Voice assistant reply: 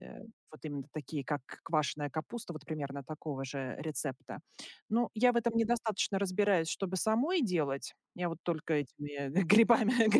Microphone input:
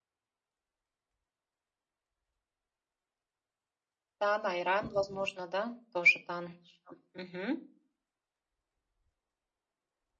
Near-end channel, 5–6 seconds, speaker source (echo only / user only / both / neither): user only